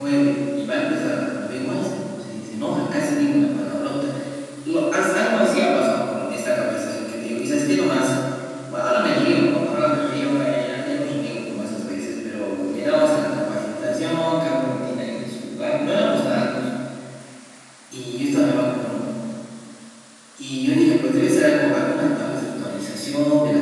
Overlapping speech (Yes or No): No